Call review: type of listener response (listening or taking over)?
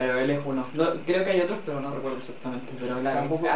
taking over